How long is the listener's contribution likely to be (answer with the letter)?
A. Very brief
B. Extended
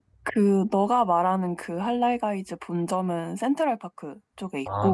B